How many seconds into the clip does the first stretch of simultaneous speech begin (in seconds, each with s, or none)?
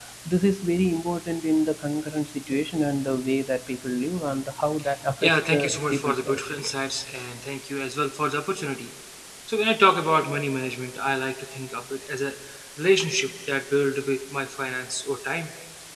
5.2 s